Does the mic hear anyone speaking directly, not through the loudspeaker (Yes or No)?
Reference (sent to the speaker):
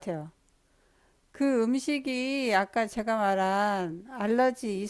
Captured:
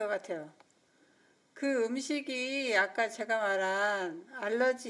No